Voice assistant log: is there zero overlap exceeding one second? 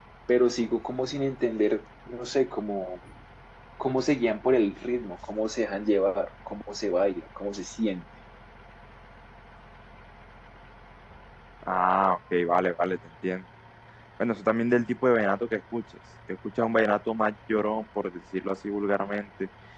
Yes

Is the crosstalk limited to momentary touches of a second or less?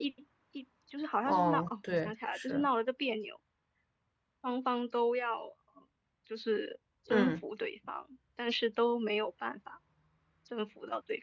No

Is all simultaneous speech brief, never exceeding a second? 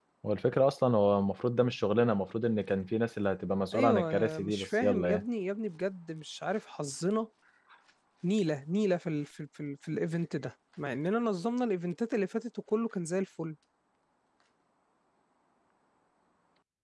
No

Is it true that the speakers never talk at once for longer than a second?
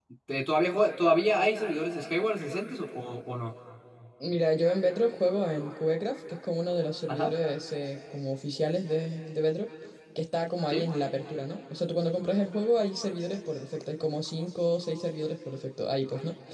Yes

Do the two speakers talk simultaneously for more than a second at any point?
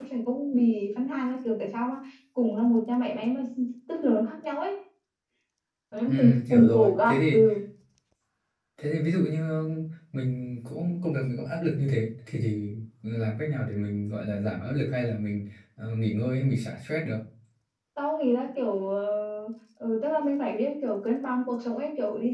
Yes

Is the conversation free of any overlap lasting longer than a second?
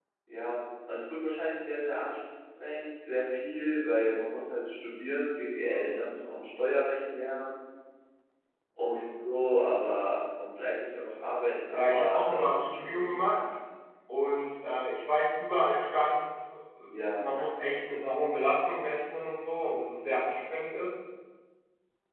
No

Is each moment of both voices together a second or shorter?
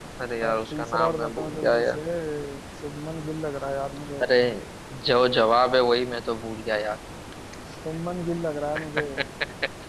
No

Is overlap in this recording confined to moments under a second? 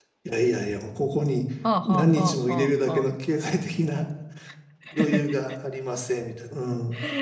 No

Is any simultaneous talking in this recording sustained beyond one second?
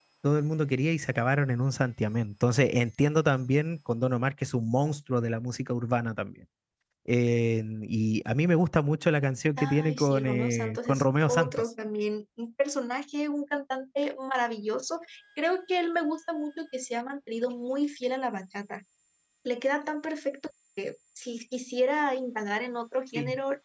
Yes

